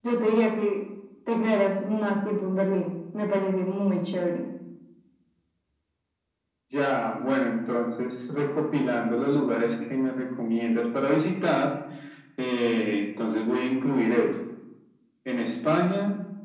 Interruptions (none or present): none